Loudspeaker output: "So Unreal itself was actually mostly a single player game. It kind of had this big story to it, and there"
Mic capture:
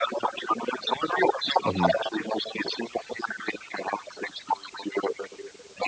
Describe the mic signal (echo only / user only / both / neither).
both